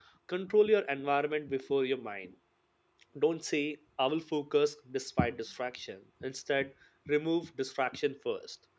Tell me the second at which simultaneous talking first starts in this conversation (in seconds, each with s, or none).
none